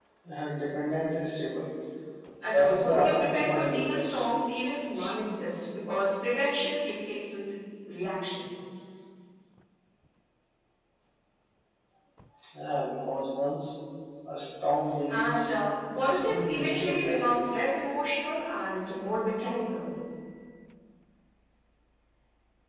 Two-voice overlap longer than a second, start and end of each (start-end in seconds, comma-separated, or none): 2.5-4.1, 16.1-17.6